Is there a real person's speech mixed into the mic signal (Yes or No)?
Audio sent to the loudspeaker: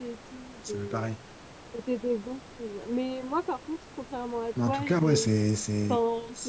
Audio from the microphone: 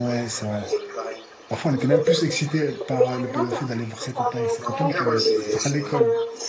Yes